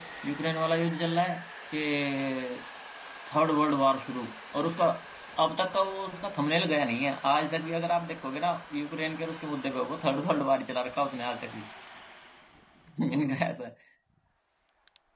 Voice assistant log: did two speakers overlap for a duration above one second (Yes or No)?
No